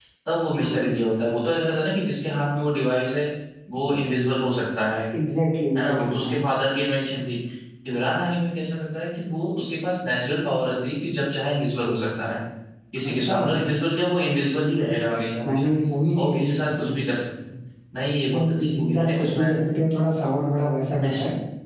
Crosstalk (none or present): present